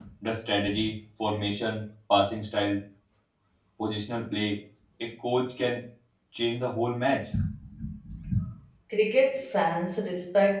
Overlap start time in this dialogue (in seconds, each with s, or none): none